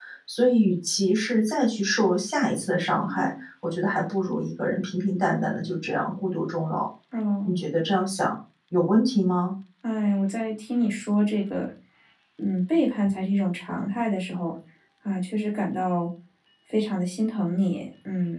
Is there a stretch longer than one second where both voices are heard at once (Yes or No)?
No